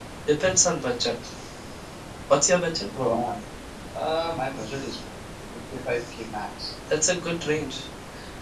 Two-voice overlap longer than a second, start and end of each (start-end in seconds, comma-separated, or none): none